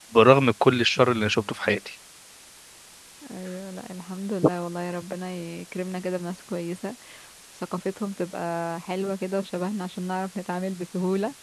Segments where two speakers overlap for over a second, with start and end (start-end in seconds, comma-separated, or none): none